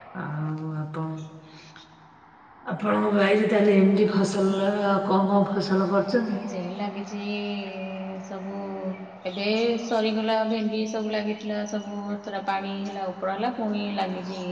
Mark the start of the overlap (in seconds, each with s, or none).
none